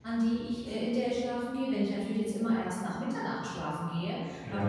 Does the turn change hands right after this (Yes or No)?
No